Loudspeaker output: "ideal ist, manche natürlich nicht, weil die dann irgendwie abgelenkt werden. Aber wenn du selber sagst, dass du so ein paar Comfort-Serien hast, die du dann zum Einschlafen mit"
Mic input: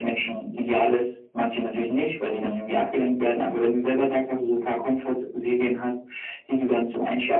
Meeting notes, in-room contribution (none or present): none